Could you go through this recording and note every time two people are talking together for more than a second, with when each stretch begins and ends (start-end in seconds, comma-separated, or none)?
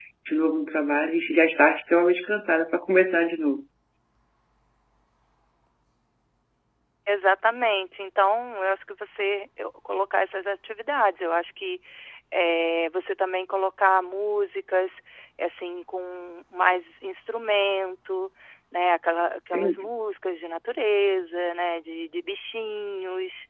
none